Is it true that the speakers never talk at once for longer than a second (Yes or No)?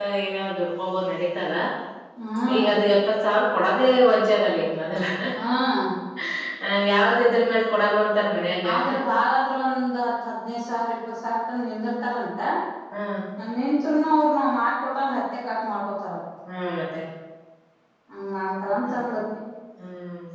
Yes